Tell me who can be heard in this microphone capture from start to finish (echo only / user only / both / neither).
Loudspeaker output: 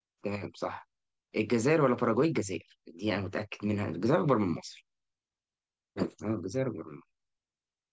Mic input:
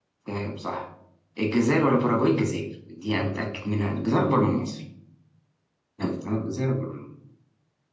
echo only